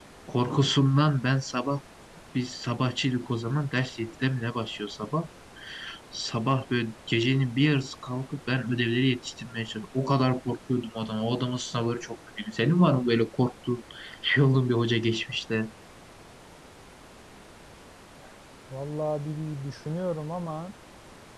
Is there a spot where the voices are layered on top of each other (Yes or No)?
No